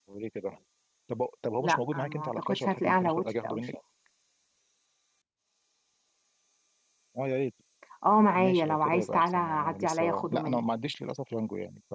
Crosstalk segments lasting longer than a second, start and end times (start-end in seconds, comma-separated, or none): 1.6-3.7, 8.3-10.6